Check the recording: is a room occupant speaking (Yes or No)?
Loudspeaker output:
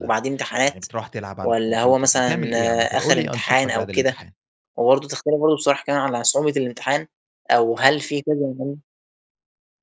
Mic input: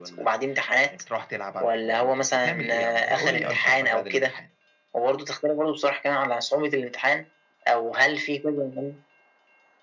Yes